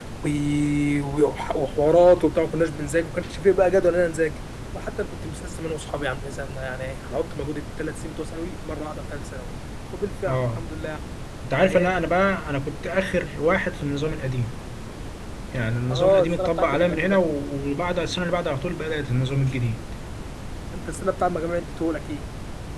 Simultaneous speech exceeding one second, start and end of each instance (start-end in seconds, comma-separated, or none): 15.9-17.2